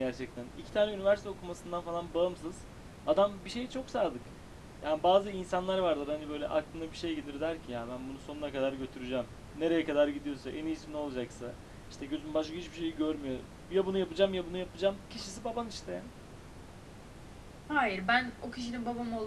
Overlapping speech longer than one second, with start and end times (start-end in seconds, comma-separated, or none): none